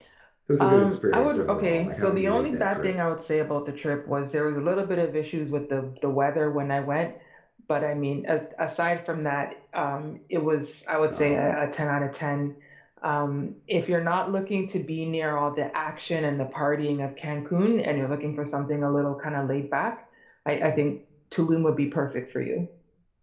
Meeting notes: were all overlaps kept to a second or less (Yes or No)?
No